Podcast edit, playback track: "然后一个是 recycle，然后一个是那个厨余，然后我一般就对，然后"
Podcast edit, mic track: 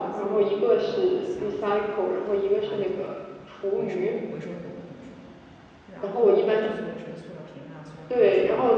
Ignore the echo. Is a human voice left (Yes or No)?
Yes